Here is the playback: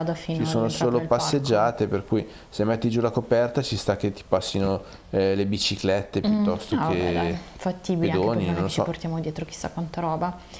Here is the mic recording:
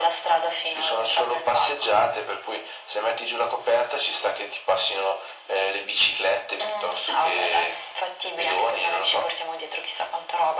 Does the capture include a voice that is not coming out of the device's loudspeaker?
No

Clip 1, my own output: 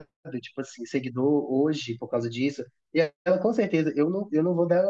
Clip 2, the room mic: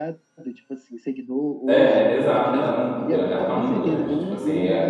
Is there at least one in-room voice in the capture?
Yes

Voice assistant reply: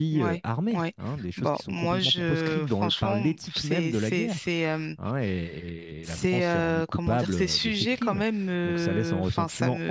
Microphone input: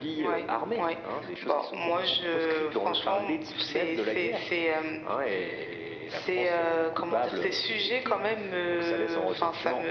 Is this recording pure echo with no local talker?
Yes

